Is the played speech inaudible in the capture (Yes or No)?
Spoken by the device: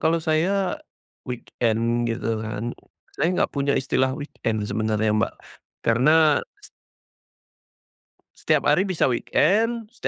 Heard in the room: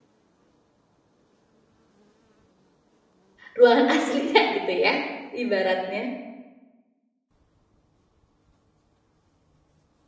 Yes